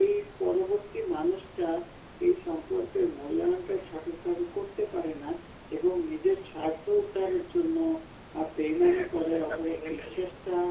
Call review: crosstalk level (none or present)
present